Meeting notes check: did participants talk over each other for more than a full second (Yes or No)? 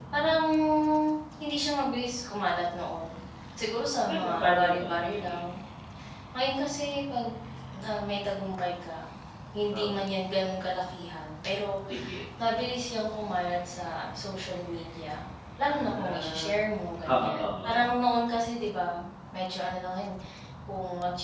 Yes